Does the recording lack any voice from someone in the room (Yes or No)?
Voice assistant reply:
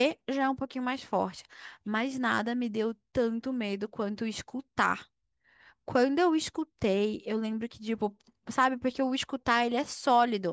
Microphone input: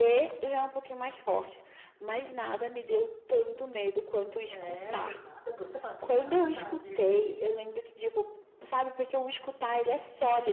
No